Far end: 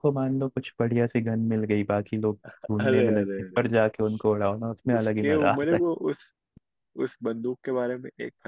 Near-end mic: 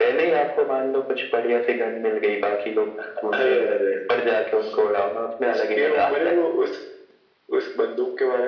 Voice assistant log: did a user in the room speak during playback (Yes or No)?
No